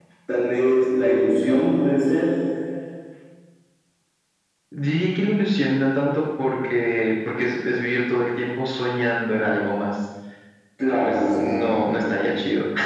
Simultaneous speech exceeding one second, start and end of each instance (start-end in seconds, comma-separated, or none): 10.9-12.1